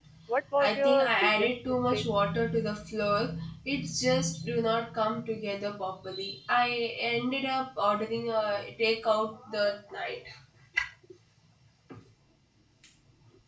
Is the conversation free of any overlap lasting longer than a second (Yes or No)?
No